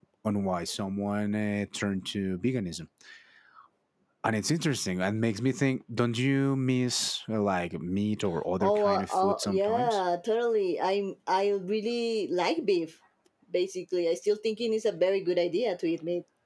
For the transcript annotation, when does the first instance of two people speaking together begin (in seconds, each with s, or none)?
8.6 s